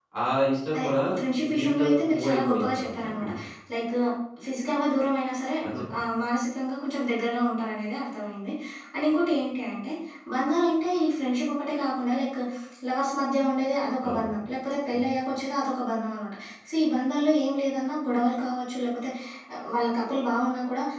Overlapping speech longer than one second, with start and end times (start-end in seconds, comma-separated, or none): 1.6-3.3